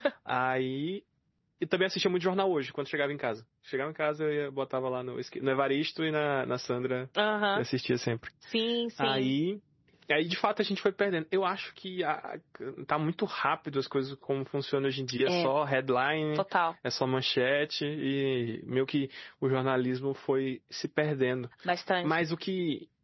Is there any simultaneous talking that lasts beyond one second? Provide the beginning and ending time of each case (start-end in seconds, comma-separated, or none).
none